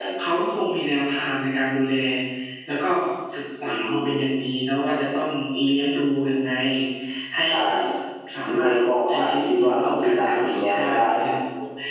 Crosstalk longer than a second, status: present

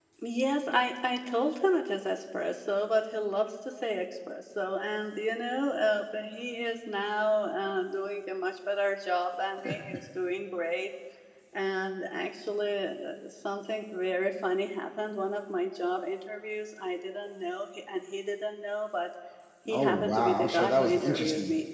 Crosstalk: present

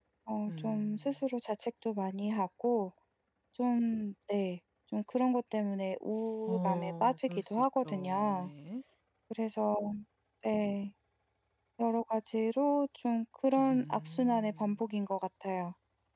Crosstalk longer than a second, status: present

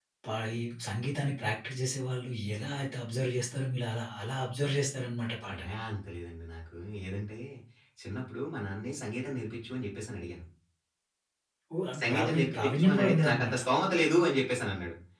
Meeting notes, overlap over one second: present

